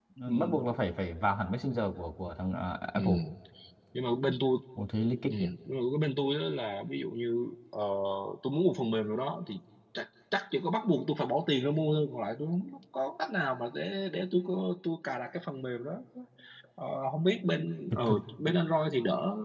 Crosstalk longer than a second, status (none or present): none